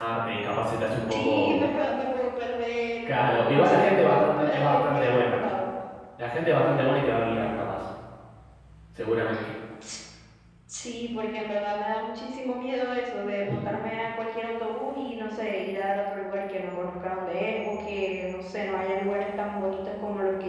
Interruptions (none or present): present